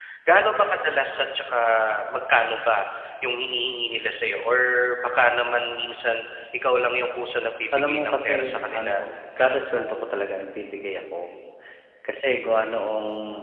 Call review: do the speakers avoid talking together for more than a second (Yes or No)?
No